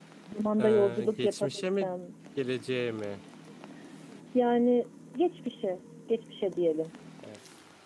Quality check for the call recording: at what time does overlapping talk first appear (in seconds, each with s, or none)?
0.6 s